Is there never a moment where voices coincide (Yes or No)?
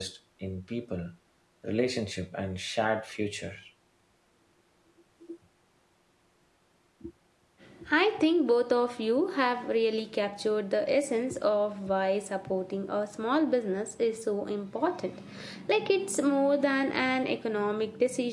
Yes